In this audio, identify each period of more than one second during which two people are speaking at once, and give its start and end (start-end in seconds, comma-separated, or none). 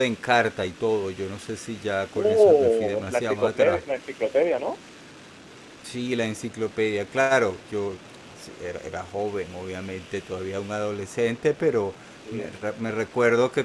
2.1-3.8